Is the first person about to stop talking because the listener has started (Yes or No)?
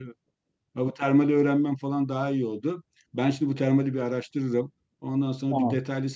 No